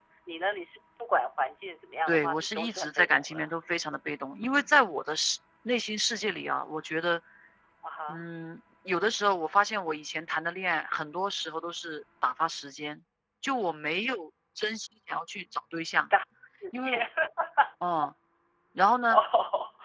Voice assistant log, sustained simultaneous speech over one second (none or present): present